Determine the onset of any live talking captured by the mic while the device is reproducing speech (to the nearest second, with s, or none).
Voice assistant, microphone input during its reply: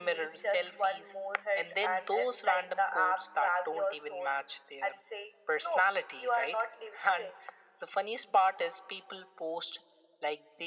none